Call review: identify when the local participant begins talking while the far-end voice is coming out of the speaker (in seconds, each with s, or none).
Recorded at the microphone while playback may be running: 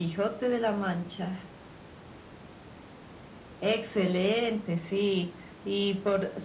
none